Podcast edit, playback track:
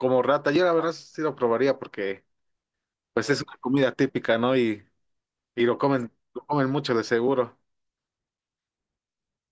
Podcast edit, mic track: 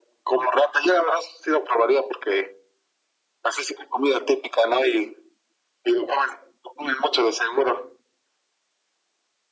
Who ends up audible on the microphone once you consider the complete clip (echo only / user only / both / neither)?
echo only